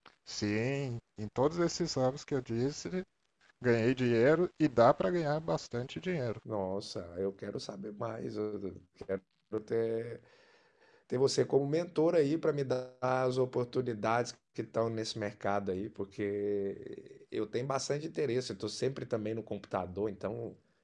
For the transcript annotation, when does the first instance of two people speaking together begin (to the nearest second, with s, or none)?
none